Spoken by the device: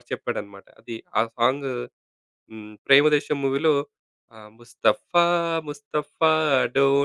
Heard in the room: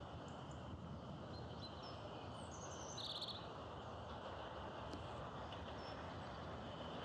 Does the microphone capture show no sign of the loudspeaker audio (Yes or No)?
Yes